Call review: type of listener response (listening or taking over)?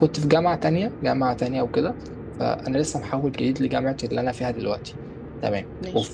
listening